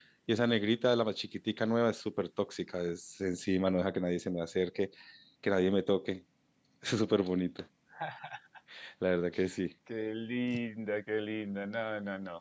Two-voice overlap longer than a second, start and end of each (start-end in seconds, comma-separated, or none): none